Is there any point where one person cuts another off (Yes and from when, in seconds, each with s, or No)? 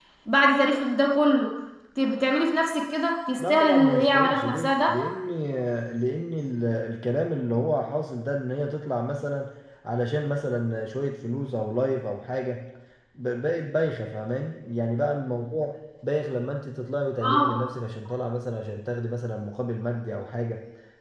Yes, from 3.4 s